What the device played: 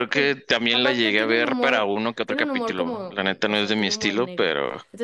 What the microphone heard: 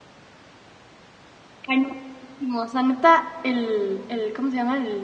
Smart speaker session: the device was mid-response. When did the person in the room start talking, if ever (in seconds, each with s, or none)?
1.6 s